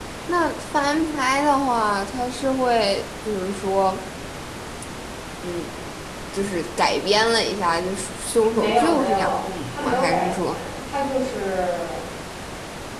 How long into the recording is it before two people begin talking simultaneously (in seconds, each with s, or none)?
8.6 s